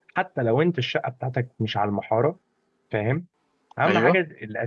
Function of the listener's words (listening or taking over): listening